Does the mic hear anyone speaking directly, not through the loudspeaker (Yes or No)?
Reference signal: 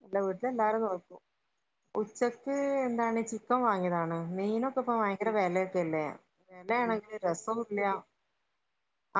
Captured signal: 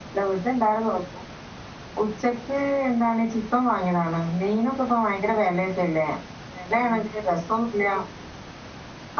No